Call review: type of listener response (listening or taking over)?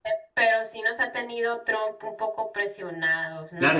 taking over